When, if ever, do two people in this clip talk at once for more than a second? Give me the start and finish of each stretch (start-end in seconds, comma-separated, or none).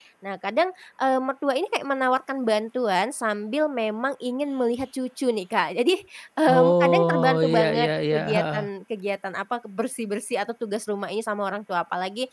6.6-8.6